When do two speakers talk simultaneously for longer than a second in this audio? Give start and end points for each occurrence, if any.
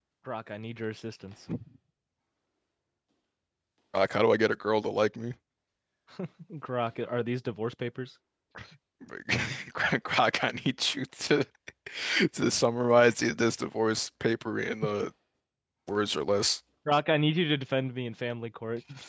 none

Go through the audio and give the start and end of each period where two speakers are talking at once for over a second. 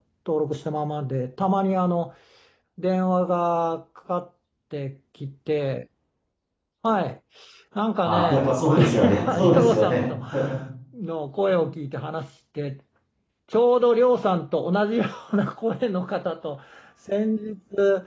8.0-10.0

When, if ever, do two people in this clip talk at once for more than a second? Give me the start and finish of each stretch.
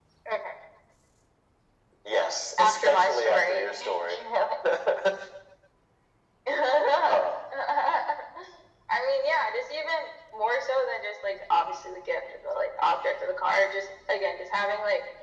2.6-4.2

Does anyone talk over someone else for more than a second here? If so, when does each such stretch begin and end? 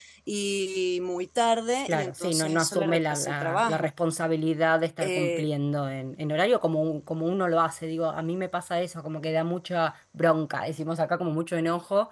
1.9-3.9

